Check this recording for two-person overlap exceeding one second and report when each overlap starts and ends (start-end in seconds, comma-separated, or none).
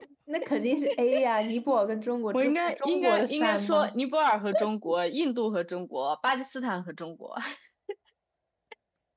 2.3-4.0